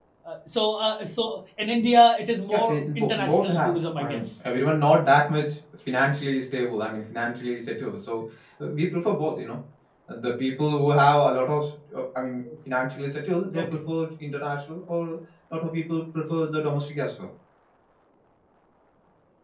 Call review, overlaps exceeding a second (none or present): present